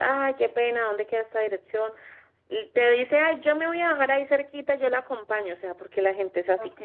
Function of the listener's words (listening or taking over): listening